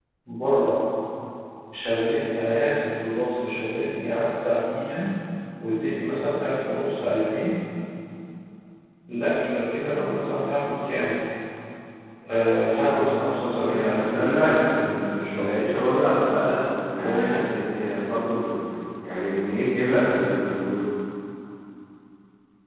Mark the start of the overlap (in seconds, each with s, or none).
13.7 s